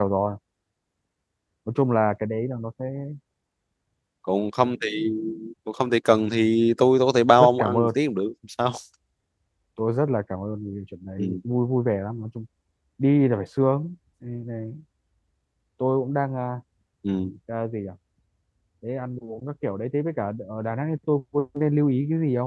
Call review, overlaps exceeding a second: none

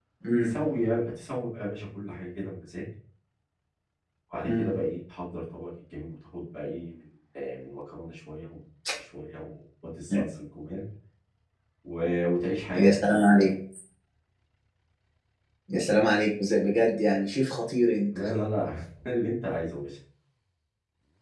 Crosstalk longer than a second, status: none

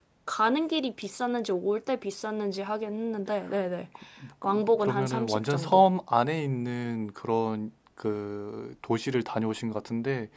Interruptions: present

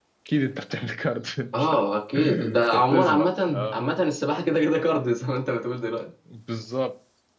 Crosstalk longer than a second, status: present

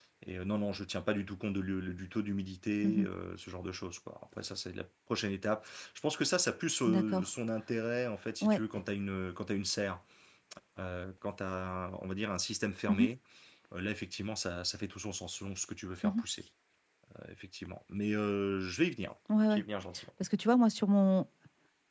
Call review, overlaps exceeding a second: none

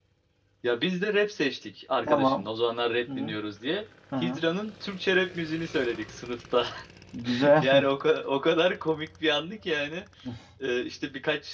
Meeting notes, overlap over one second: none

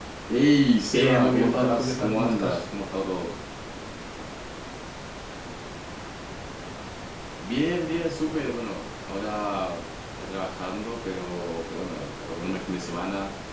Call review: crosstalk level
present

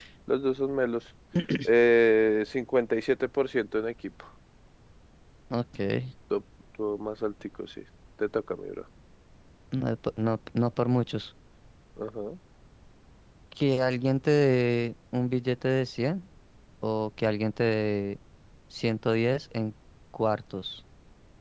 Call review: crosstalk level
none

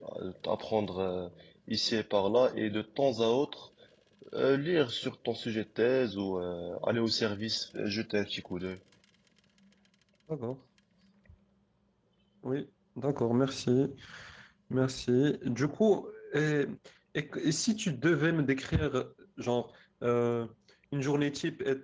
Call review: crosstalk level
none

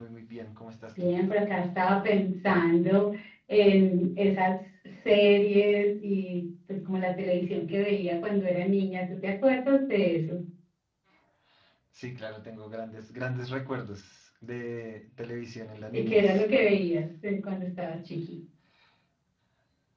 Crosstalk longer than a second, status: none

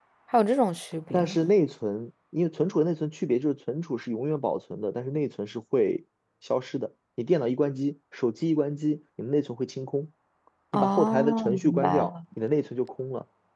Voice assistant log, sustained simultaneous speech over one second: present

